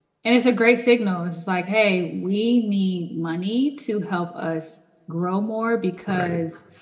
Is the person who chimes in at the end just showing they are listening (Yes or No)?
Yes